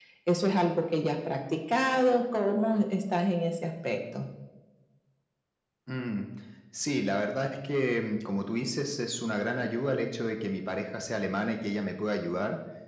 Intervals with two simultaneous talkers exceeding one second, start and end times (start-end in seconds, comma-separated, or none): none